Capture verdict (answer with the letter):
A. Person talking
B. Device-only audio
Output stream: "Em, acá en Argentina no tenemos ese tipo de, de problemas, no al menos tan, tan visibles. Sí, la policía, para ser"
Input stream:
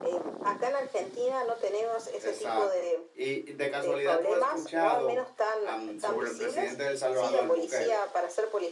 A